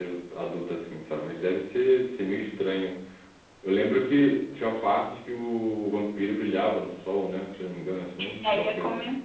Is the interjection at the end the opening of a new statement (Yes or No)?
Yes